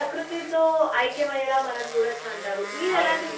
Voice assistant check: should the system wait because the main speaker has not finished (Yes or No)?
Yes